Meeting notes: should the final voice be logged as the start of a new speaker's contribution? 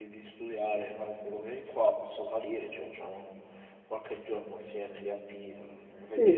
Yes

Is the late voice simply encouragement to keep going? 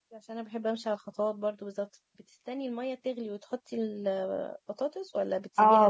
No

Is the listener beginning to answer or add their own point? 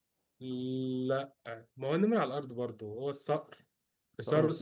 No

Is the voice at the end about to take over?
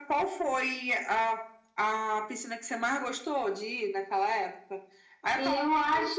No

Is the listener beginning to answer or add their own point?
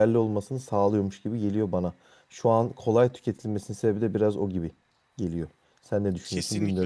Yes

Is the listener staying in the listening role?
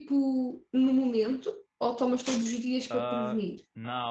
No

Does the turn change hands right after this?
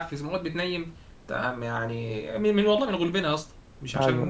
No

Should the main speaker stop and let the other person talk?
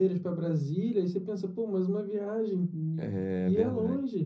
Yes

